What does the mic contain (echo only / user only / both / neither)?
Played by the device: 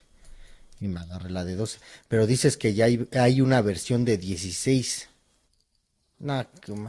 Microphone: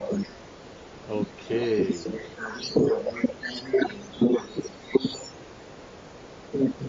both